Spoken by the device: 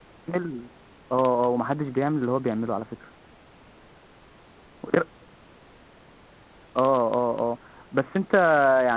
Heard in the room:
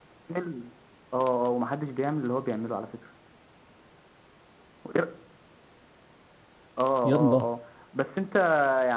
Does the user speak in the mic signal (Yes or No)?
Yes